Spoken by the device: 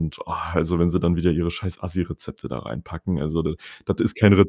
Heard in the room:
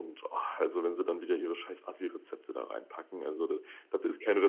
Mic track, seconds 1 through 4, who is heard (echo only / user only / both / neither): echo only